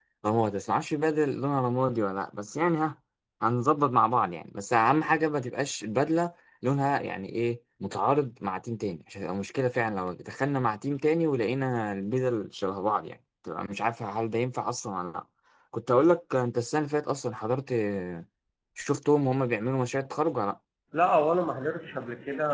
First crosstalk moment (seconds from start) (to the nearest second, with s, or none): none